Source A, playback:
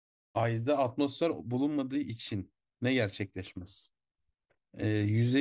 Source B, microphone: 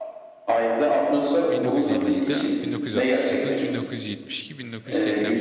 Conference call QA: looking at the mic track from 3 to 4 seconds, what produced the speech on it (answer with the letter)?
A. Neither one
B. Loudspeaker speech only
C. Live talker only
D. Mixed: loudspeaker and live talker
D